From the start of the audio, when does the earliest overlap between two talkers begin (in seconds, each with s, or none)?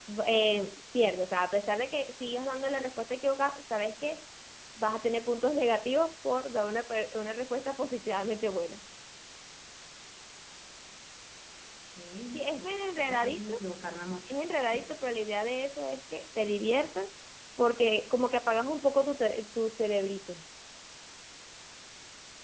12.3 s